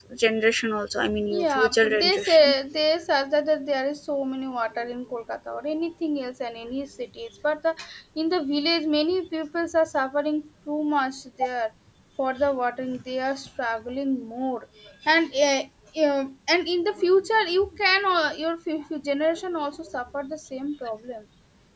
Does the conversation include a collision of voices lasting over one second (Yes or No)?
Yes